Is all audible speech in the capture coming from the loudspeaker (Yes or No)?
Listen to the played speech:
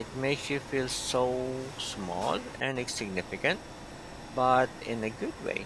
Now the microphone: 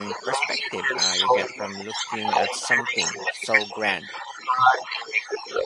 No